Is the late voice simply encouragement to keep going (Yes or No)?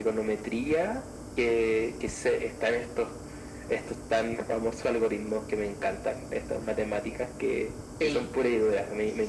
Yes